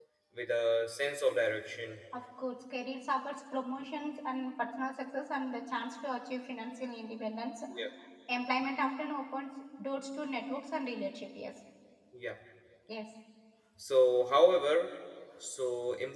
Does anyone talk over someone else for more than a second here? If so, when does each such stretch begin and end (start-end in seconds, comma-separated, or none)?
none